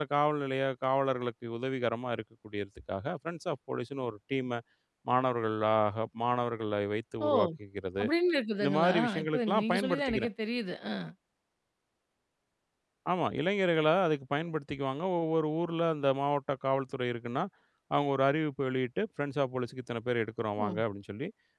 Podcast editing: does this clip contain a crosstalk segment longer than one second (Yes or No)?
Yes